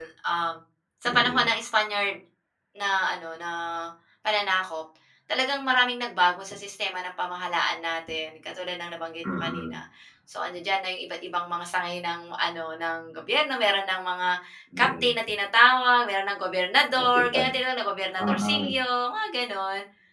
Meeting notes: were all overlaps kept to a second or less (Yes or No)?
Yes